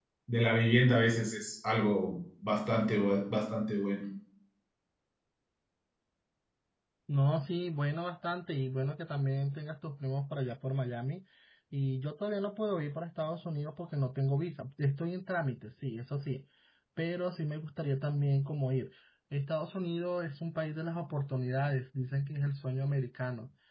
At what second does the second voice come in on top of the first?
none

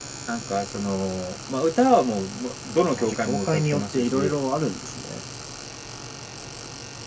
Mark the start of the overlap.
2.9 s

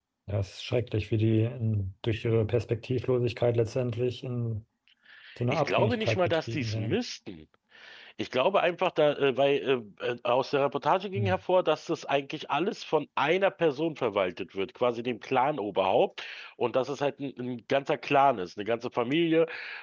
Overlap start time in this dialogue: 5.5 s

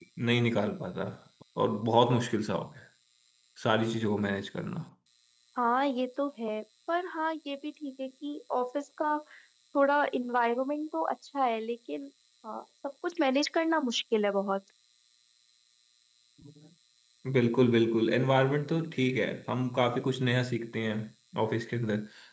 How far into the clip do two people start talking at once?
none

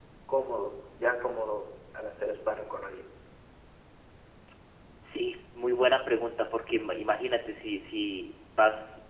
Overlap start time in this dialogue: none

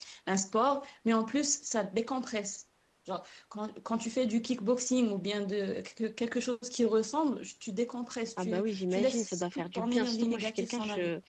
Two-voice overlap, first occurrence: 8.4 s

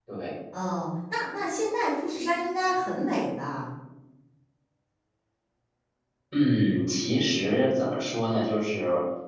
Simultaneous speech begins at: none

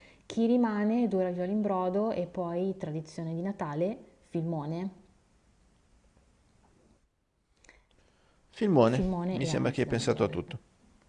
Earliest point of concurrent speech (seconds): 8.9 s

